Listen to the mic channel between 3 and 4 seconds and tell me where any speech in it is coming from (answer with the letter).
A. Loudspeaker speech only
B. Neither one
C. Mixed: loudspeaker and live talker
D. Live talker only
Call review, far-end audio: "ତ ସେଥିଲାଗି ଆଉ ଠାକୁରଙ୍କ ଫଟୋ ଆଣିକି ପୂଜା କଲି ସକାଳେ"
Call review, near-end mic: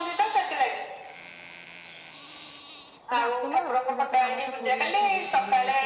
C